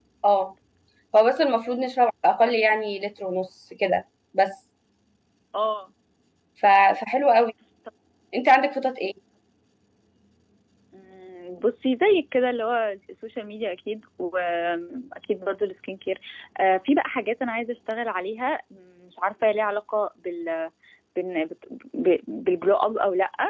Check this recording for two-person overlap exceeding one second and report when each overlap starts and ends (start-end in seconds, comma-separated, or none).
none